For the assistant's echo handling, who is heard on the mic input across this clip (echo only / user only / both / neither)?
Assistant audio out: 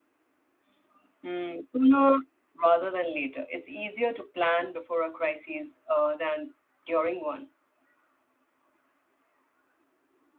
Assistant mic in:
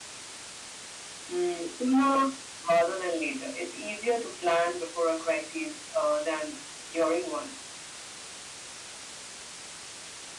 echo only